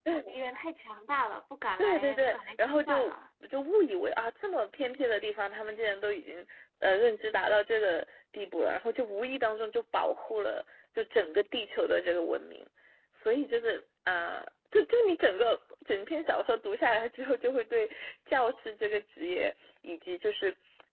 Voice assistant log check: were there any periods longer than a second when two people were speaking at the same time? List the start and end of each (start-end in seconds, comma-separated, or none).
1.8-3.1